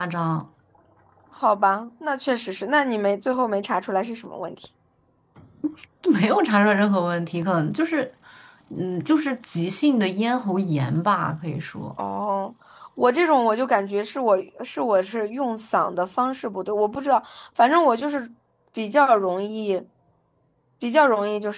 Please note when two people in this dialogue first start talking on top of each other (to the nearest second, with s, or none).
none